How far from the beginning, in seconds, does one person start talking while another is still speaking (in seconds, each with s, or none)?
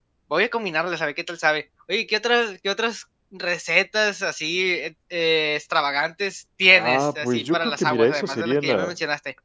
6.7 s